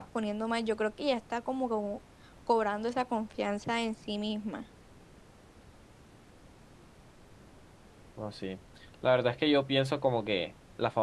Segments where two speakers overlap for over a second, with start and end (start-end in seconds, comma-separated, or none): none